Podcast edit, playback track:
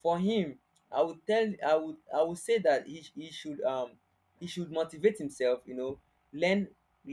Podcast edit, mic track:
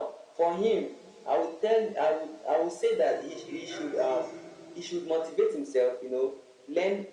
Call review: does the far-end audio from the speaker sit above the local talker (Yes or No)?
Yes